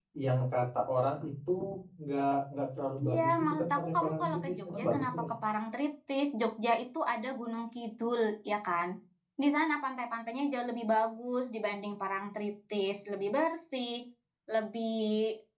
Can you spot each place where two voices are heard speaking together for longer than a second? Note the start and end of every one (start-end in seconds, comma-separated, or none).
3.0-5.3